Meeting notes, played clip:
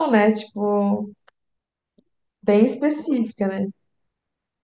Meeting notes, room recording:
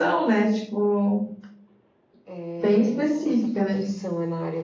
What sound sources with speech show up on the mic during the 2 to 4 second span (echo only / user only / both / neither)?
both